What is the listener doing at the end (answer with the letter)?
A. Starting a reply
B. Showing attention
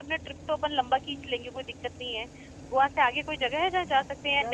A